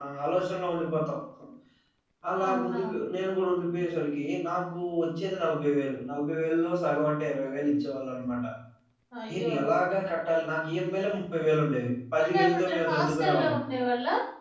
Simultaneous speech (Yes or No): Yes